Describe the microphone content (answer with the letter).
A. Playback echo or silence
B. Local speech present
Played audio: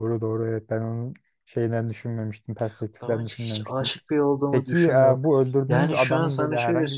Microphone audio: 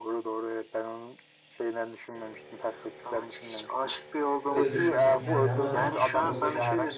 B